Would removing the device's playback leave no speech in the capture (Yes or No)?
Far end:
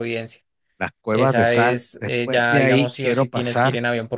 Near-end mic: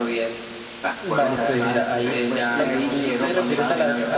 No